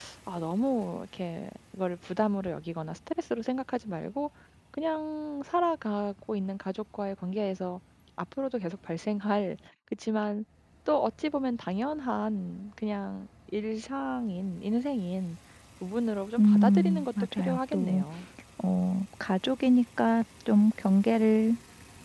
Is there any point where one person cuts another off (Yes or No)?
Yes